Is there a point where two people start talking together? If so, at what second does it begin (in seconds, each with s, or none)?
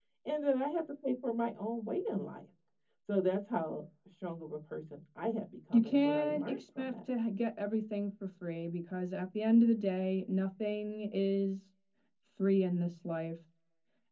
5.7 s